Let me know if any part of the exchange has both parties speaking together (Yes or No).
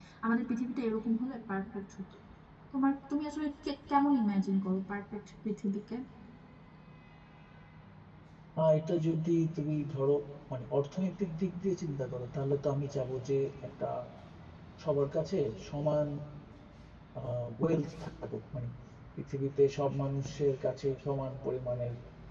No